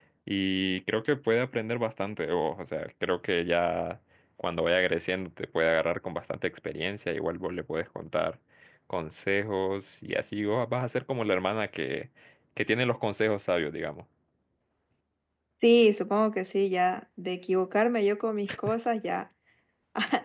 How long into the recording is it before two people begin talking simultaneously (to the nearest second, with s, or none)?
none